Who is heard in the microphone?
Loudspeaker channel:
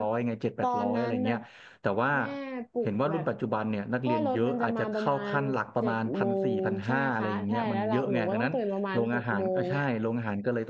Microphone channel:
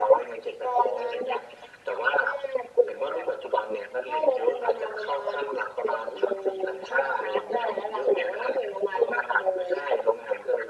echo only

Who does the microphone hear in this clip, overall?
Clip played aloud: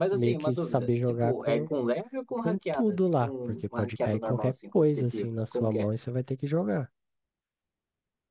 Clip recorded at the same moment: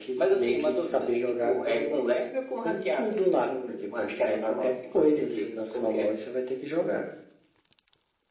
echo only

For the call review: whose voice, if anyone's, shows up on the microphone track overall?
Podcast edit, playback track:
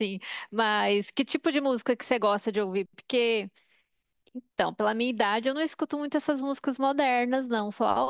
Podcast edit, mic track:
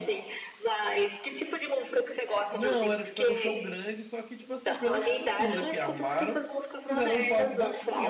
both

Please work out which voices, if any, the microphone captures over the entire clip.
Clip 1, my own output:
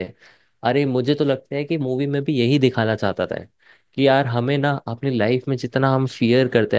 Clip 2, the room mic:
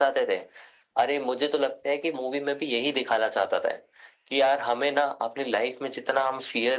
echo only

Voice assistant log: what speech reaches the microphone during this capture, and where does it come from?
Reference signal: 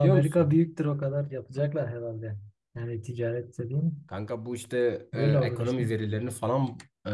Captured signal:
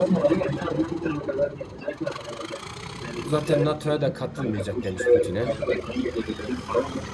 both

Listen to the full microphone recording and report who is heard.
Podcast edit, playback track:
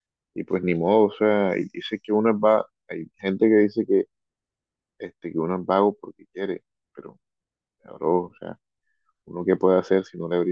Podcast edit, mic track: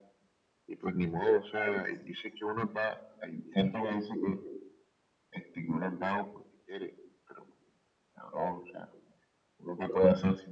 echo only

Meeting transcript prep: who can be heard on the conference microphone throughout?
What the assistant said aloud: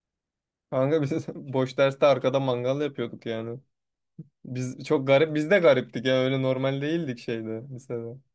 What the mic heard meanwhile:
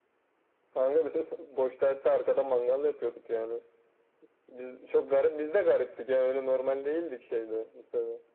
echo only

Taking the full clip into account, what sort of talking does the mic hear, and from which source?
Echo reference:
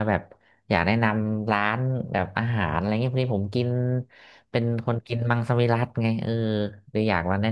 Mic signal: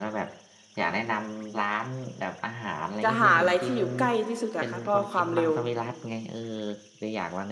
both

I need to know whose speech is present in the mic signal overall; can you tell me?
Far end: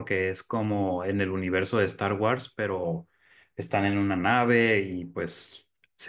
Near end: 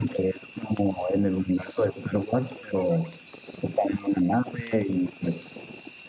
echo only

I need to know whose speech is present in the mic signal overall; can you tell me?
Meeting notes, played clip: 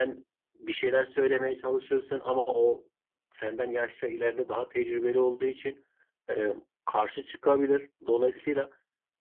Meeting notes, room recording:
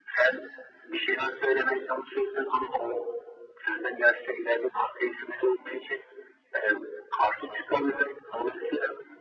echo only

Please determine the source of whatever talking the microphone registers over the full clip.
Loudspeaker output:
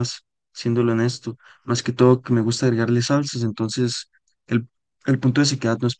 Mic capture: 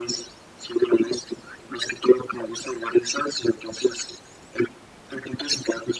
echo only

